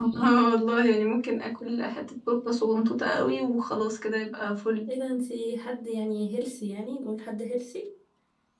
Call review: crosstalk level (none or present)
none